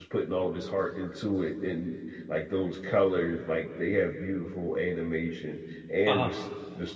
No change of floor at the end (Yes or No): Yes